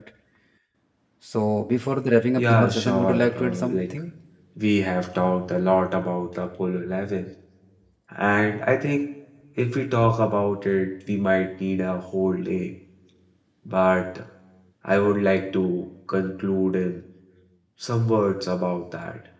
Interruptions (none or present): present